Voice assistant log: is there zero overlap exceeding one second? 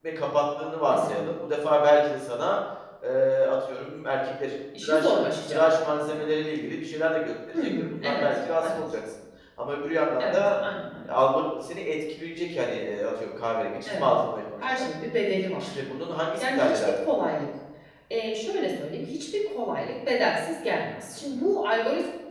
No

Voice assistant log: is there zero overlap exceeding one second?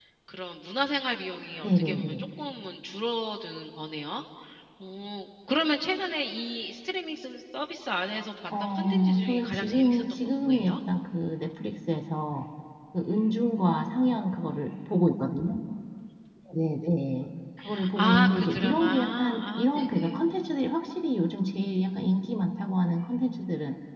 No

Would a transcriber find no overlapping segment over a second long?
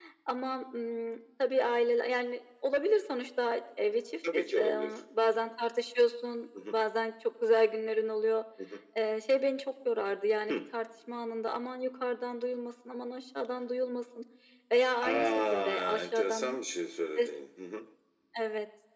No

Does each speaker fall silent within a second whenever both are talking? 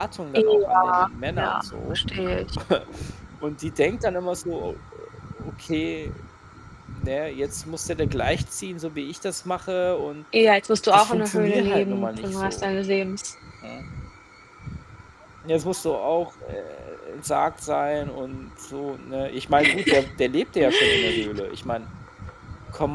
No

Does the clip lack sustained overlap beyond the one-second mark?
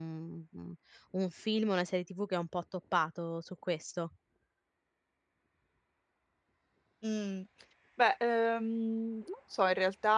Yes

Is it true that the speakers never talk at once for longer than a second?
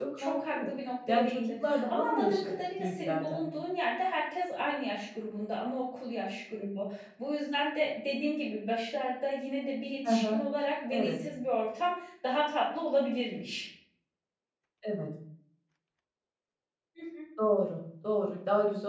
No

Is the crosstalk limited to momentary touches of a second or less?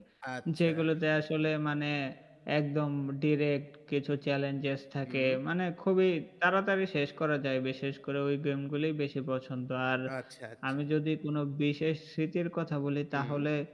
Yes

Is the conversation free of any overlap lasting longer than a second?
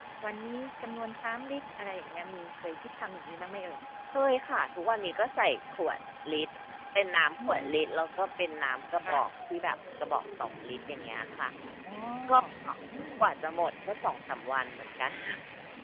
Yes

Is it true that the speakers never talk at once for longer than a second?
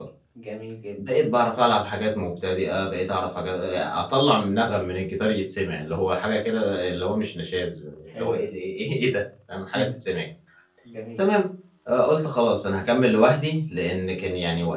Yes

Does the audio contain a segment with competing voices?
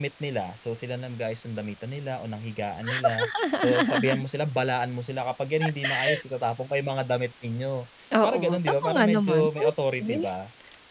Yes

